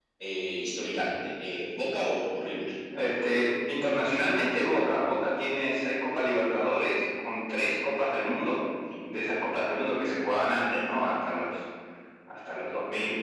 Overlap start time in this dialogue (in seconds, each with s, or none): none